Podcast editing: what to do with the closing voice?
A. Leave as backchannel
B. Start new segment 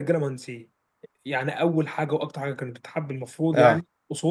A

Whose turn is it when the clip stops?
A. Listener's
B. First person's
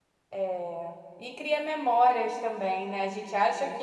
B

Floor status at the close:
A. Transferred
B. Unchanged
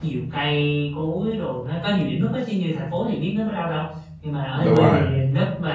B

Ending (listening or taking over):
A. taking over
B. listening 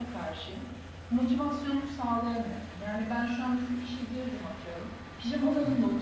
B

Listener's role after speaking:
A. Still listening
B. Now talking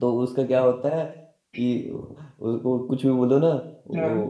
A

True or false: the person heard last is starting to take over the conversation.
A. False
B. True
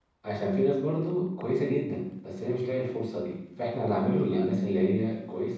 A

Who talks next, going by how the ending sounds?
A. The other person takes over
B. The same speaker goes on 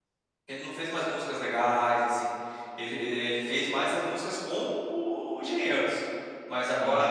B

